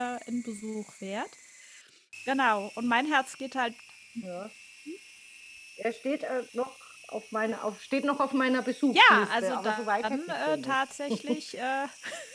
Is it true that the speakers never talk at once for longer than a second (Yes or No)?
No